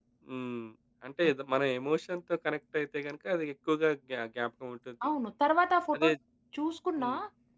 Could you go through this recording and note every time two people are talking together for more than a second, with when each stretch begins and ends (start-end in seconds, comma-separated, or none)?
none